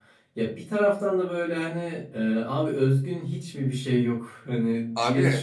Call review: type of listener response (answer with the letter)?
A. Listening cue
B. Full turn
B